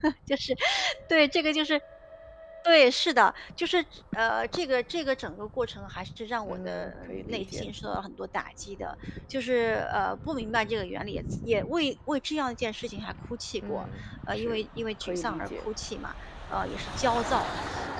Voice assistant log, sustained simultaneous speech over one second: present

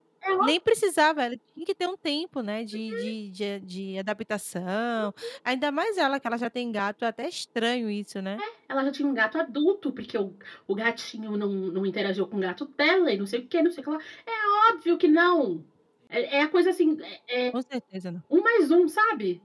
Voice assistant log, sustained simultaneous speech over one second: none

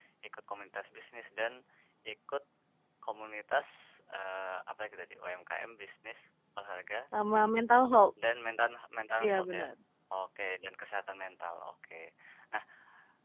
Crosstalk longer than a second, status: none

